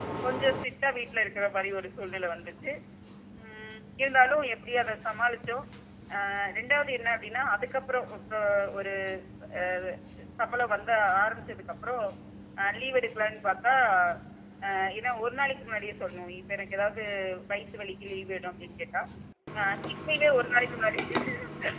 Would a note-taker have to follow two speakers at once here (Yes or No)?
No